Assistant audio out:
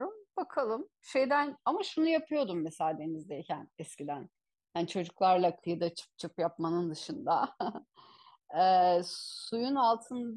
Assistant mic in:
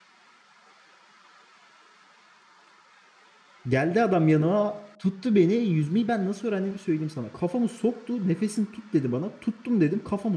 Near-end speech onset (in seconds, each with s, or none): 3.7 s